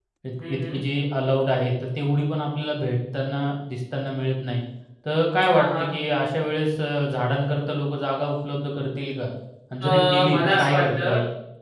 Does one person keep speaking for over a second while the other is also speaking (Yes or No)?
Yes